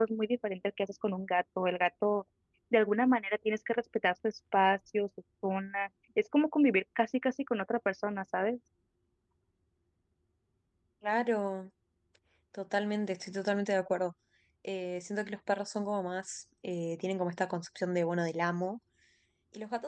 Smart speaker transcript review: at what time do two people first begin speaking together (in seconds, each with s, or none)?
none